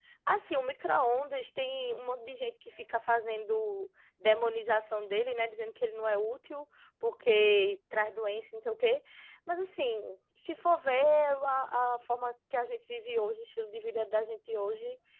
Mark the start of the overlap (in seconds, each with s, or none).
none